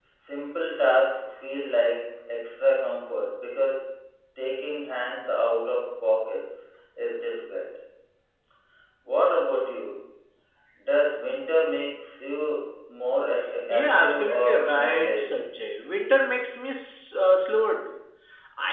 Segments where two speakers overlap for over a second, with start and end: 13.7-15.5

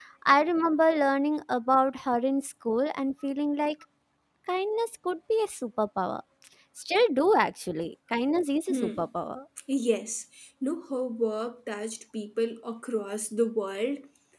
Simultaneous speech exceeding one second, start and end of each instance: none

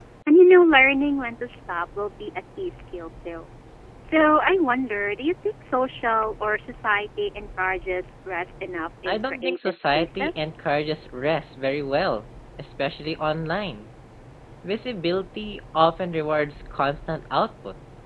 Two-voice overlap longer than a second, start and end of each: 9.1-10.5

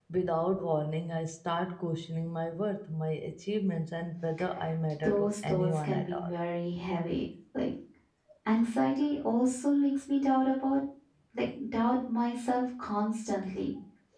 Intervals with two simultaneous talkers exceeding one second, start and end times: 5.0-6.4

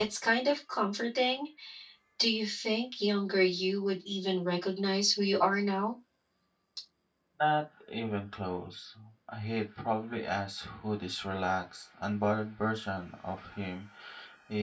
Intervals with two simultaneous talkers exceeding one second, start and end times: none

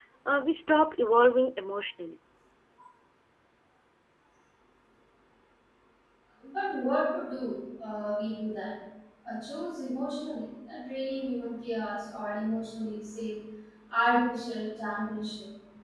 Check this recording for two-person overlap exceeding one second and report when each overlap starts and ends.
none

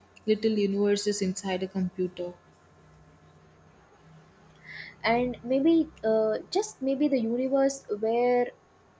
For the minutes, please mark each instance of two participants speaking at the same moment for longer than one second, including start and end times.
none

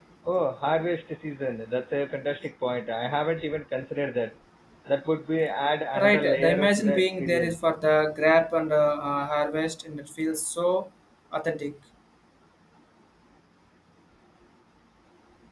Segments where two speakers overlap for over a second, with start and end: 5.9-7.5

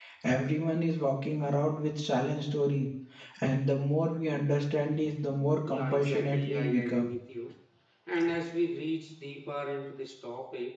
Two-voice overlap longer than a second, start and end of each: 5.7-7.1

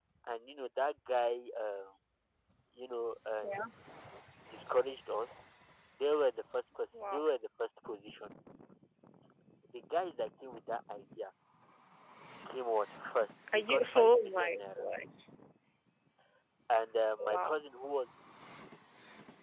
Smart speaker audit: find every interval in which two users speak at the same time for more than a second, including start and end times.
13.5-14.8

